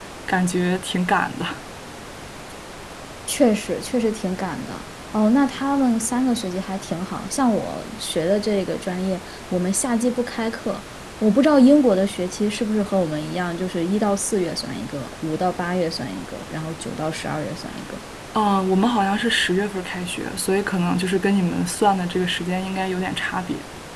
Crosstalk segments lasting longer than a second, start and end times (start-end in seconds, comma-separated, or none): none